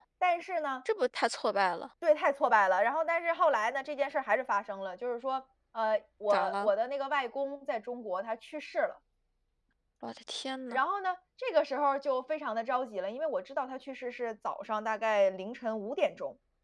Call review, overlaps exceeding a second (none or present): none